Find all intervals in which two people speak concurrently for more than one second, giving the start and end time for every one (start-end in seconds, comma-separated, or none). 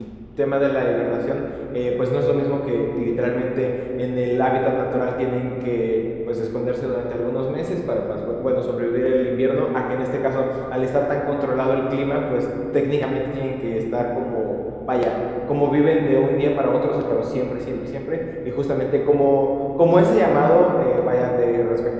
none